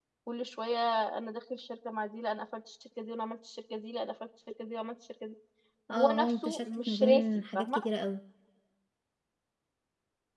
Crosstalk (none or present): present